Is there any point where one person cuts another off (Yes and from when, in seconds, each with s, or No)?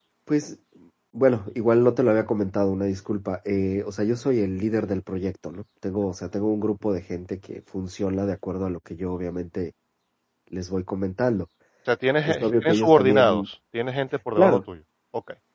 Yes, from 12.2 s